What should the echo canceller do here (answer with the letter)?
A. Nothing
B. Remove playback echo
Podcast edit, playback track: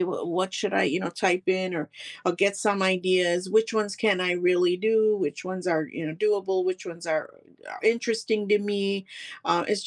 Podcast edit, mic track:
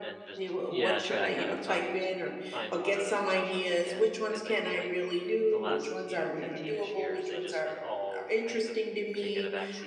B